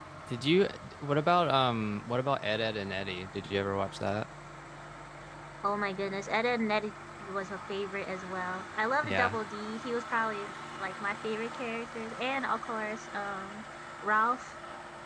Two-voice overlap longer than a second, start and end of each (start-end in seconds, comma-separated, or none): none